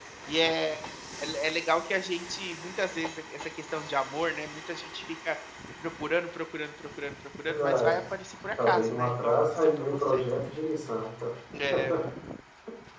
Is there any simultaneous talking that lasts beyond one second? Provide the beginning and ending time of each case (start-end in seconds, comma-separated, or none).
8.7-10.2